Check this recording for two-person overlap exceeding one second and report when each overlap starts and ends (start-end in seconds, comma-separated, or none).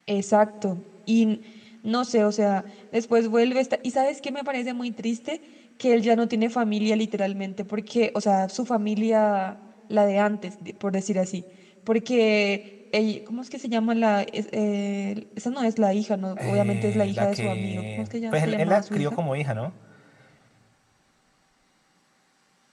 16.4-19.2